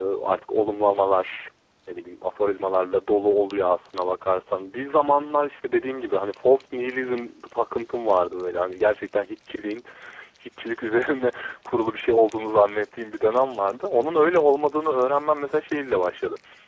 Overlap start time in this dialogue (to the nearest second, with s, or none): none